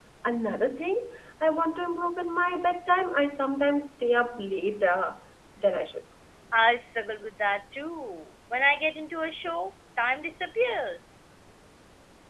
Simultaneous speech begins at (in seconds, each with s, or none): none